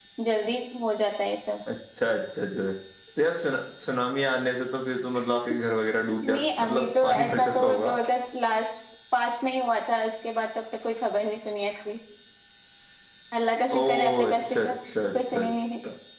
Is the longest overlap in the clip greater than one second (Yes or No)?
Yes